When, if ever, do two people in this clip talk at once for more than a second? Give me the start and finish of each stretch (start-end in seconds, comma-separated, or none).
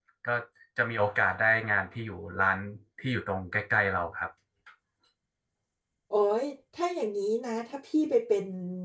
none